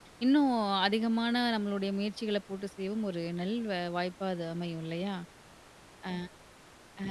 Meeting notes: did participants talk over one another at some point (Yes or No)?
No